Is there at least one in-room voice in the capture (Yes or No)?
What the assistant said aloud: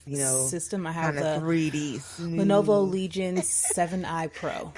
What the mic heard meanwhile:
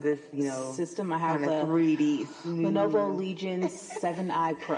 No